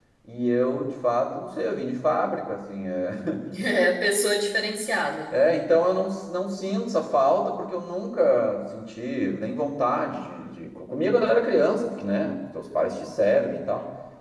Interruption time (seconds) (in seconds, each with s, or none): none